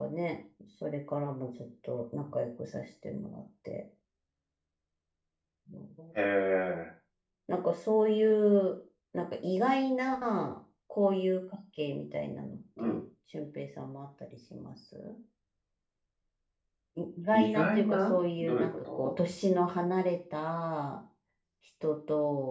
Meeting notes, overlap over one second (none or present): present